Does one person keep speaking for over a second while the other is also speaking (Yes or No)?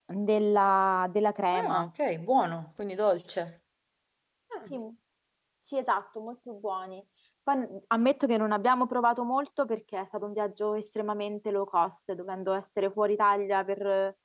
No